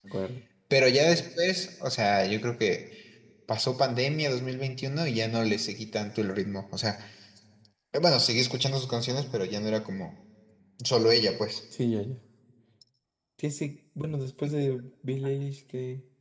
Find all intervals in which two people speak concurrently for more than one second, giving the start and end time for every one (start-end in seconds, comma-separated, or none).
none